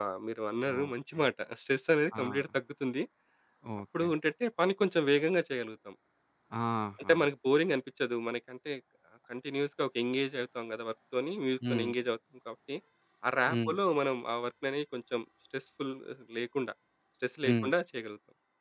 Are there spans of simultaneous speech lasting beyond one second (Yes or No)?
No